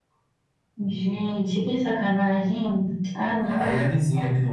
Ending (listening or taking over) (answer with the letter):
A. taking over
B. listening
A